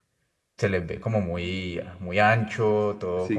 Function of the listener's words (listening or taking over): taking over